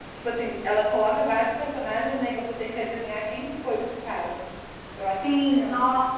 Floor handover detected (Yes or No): Yes